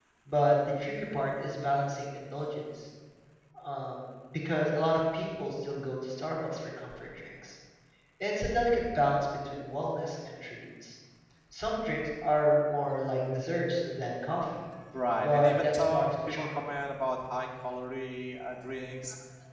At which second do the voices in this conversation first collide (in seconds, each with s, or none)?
15.2 s